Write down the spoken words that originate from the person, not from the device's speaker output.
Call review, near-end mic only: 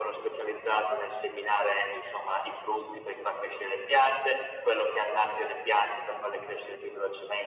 none

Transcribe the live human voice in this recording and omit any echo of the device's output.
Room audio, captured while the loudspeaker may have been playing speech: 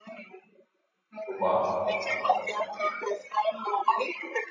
tutto qua.

